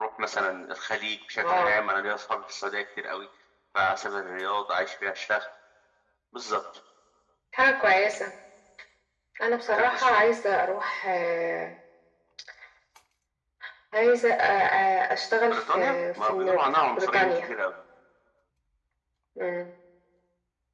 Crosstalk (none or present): present